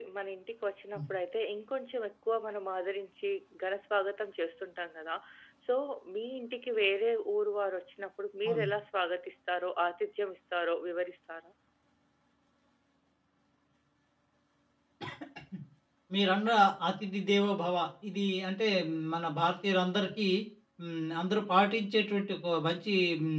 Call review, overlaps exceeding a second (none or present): none